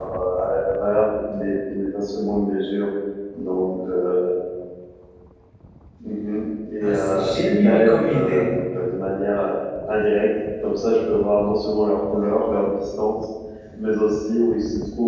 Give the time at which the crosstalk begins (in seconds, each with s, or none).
6.8 s